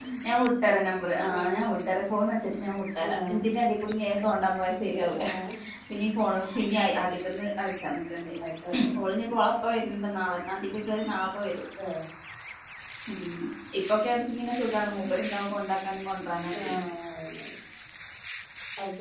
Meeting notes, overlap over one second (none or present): none